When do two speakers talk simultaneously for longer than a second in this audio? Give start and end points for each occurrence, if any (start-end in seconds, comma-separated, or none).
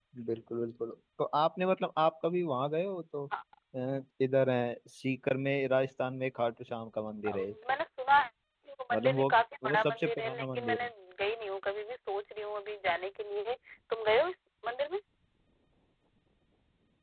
9.6-10.9